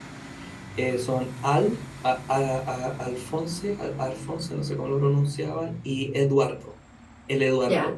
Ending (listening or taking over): taking over